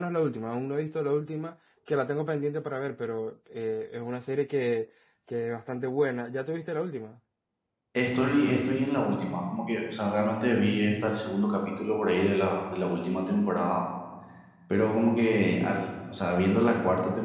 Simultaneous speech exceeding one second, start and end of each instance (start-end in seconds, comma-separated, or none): none